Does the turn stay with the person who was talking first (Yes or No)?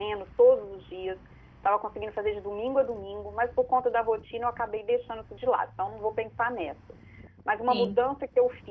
Yes